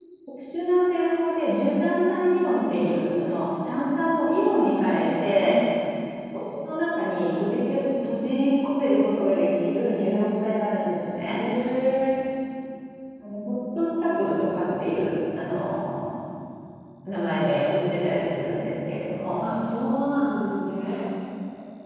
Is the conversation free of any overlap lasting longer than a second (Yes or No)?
Yes